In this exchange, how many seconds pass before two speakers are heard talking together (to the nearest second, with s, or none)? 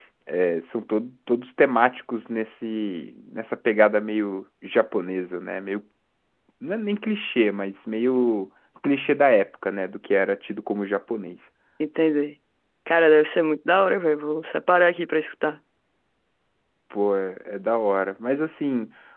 none